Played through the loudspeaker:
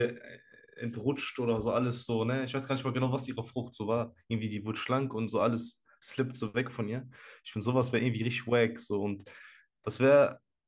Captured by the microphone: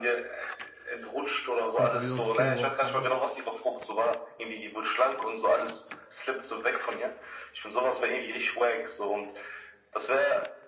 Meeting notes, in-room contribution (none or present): present